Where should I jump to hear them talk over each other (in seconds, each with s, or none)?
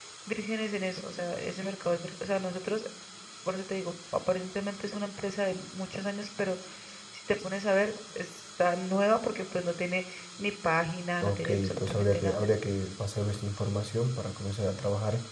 11.2 s